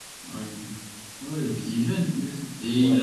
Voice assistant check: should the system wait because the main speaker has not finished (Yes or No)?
No